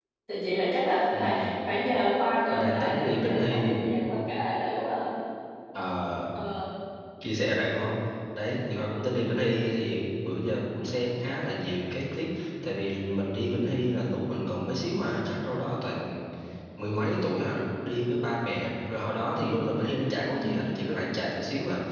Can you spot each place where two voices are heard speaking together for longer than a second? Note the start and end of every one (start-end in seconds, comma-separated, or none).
2.4-3.8